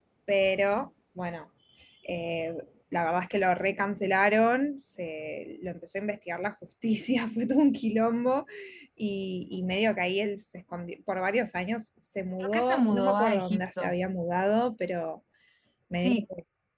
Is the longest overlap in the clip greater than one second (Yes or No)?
Yes